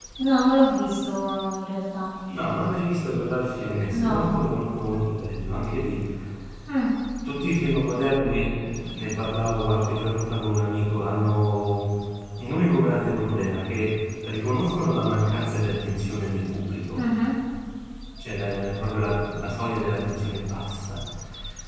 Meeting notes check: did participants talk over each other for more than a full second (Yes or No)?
No